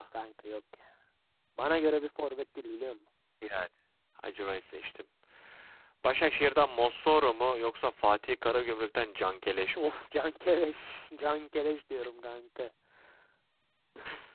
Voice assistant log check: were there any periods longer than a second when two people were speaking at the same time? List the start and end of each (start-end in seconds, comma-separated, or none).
none